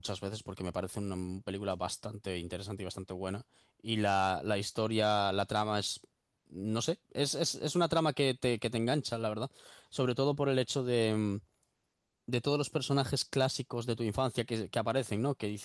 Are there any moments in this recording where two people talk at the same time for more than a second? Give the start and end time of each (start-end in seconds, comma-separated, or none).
none